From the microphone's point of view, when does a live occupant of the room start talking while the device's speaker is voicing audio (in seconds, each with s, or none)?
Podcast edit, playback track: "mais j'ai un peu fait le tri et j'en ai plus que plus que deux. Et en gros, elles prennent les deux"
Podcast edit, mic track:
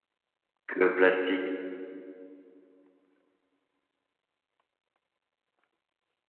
0.7 s